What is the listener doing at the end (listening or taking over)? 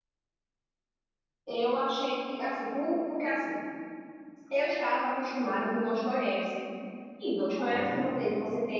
listening